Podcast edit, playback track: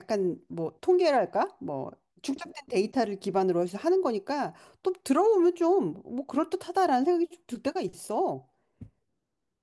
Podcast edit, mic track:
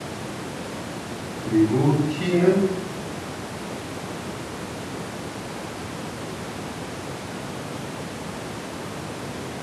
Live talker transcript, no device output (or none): 그리고 T는